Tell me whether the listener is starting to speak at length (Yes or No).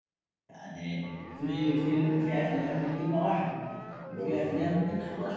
No